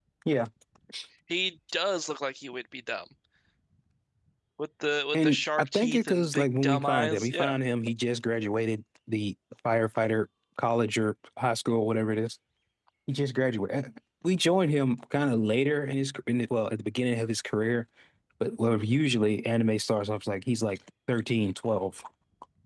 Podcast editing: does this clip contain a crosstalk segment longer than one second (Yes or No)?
Yes